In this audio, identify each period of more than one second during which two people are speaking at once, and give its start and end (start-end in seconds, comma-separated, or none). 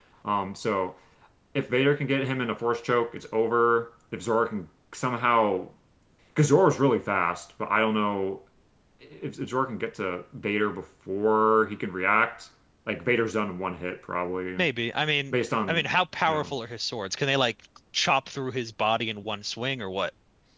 none